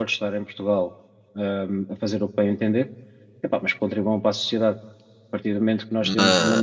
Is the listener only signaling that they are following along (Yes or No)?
Yes